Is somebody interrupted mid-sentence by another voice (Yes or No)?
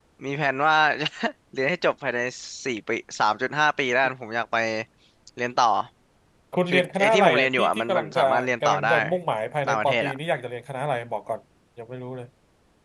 Yes